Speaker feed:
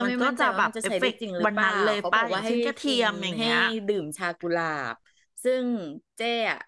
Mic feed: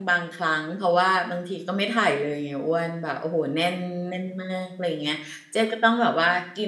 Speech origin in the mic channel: user only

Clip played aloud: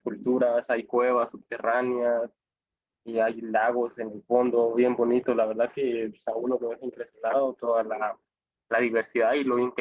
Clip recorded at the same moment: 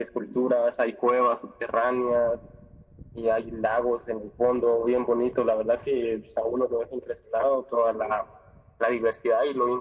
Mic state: echo only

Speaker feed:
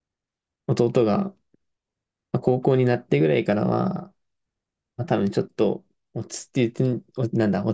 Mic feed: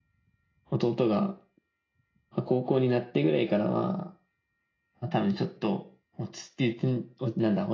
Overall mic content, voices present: echo only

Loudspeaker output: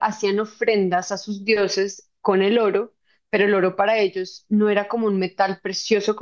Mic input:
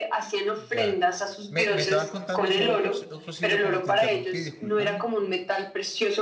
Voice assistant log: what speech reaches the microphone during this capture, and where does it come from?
both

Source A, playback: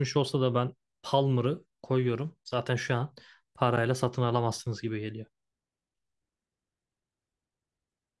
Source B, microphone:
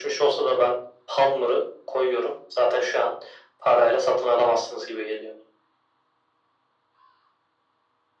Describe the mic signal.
echo only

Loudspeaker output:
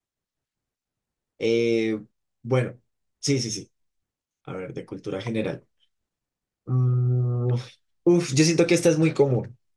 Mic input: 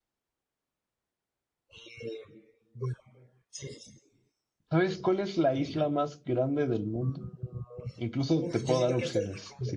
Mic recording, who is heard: both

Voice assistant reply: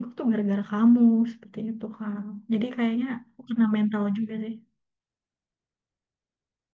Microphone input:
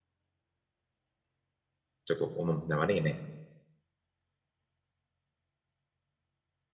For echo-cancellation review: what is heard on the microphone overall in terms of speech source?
user only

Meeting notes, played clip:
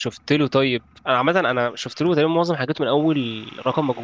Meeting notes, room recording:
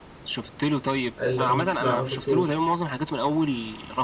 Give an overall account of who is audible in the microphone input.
both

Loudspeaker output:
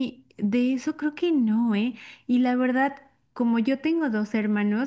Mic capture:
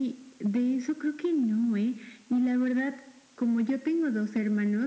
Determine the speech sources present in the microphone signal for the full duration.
echo only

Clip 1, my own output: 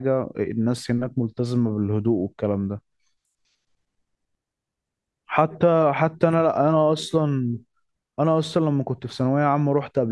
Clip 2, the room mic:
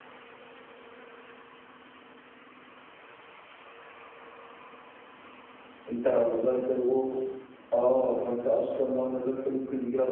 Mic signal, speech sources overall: user only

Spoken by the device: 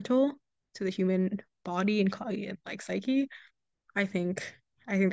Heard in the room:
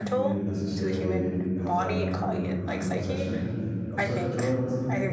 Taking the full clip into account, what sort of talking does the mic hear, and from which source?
both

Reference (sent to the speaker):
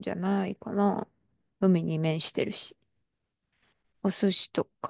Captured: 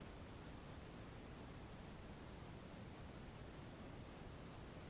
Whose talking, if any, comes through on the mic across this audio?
neither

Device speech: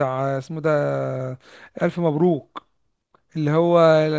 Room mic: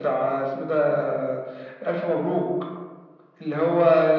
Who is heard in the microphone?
echo only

